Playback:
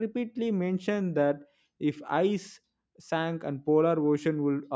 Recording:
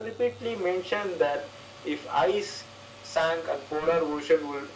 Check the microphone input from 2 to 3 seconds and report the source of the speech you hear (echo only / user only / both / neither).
echo only